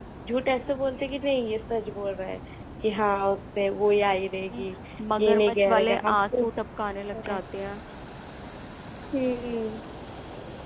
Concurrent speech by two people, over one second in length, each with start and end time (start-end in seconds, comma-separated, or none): 5.2-6.5